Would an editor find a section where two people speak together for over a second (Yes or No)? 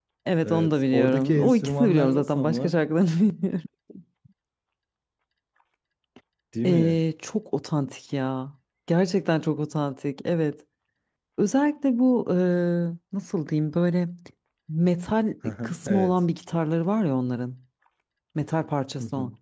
Yes